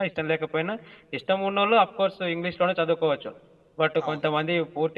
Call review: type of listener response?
listening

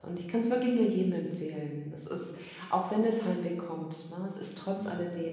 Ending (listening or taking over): listening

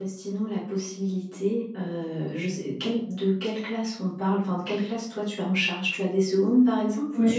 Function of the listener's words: taking over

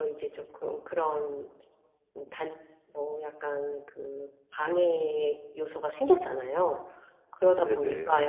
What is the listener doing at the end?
listening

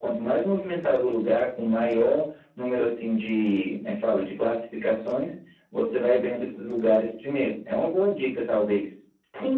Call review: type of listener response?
taking over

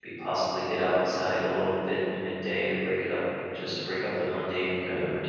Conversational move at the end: taking over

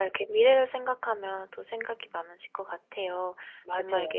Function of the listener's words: listening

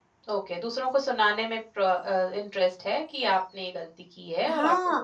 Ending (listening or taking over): taking over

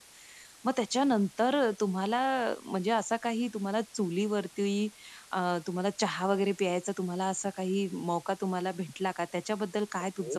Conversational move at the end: taking over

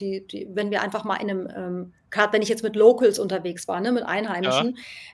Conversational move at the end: listening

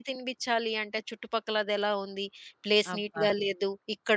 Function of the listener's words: listening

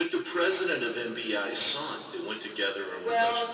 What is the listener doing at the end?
taking over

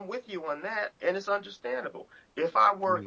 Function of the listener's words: listening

